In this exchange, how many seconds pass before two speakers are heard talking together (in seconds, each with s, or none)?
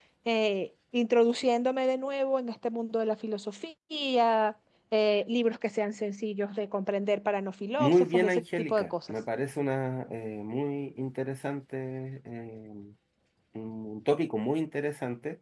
7.8 s